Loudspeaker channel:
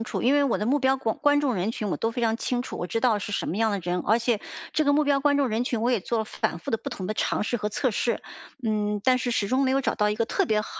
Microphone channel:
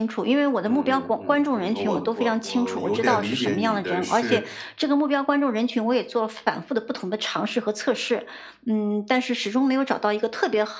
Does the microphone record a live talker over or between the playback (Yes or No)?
Yes